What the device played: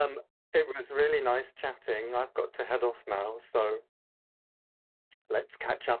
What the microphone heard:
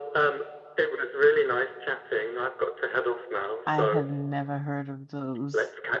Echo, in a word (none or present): present